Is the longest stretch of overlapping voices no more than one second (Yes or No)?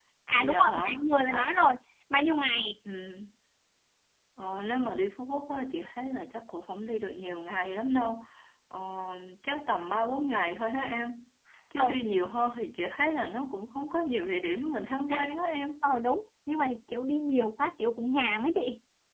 No